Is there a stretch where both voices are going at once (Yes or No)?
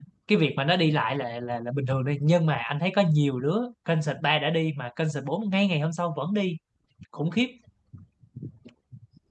No